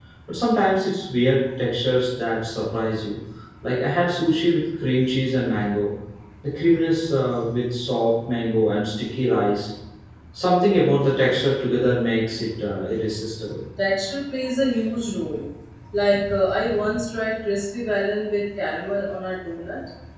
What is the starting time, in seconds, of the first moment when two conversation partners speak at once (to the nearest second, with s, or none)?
none